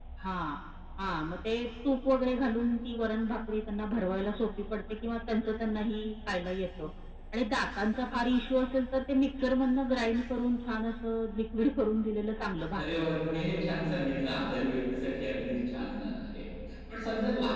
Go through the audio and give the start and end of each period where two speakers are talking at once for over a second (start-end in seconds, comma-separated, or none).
12.7-14.1